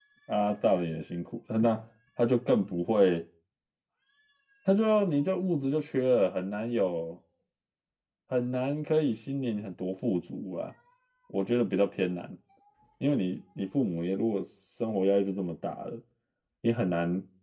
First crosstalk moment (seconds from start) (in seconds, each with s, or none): none